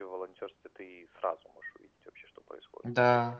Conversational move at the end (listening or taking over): taking over